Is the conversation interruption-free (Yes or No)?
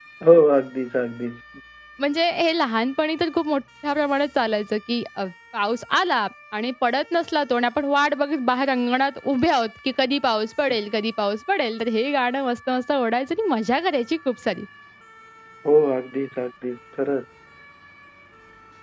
Yes